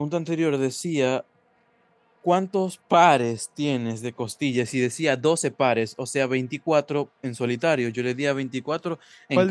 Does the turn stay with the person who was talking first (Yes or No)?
No